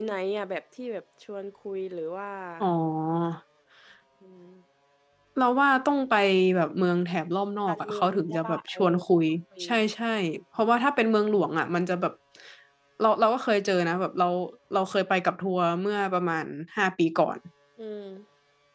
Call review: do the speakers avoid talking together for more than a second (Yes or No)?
No